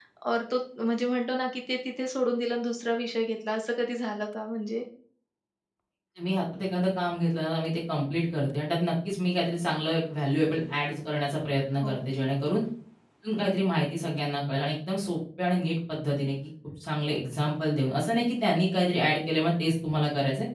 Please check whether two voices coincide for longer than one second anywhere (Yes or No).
No